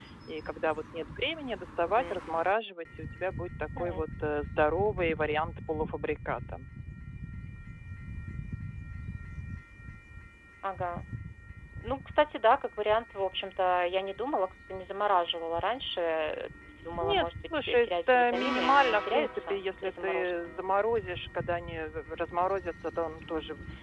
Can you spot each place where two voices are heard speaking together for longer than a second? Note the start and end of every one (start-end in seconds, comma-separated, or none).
17.0-20.5